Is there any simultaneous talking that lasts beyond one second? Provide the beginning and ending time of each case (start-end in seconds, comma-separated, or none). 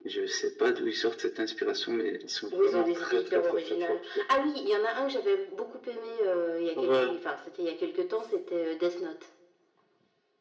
2.5-4.2